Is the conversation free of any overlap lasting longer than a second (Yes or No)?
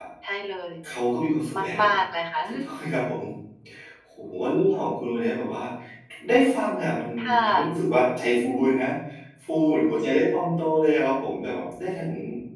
Yes